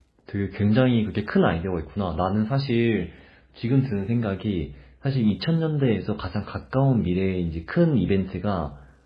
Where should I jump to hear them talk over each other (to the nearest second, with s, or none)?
none